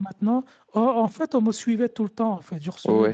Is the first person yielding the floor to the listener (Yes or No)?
No